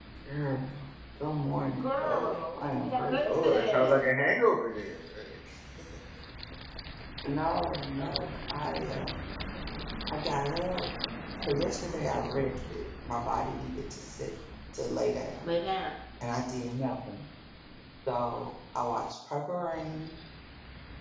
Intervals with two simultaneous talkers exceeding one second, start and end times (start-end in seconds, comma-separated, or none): 1.8-4.0